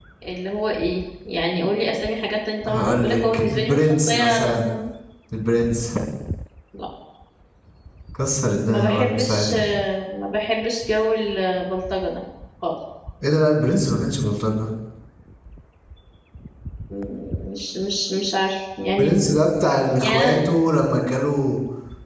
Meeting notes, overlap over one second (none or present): present